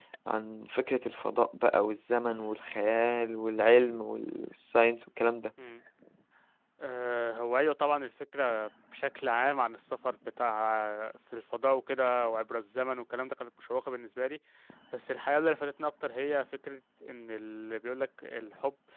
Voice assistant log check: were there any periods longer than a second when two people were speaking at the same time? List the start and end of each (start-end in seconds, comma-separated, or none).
none